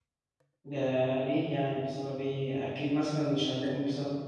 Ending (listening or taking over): listening